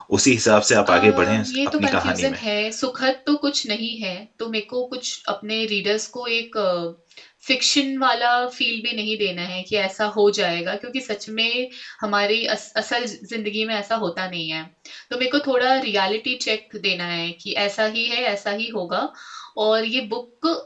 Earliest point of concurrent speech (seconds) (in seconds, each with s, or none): 0.9 s